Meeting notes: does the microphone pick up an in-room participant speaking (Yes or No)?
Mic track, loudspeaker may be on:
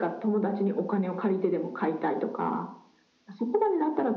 No